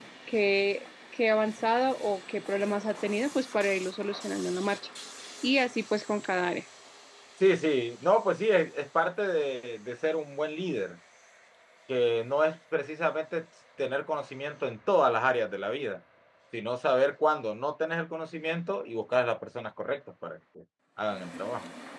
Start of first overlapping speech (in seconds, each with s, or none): none